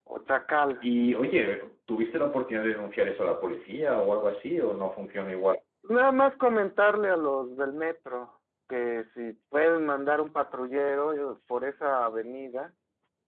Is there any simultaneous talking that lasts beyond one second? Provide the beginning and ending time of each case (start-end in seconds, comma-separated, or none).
none